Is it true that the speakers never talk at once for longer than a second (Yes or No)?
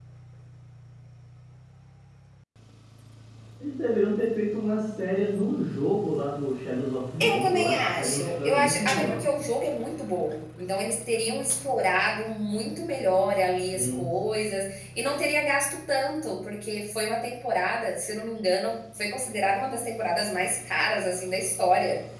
No